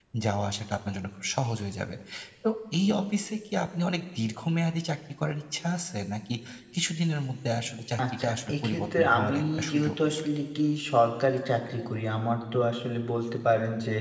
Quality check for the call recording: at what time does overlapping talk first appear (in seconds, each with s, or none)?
8.0 s